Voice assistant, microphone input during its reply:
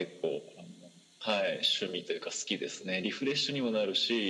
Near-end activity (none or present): none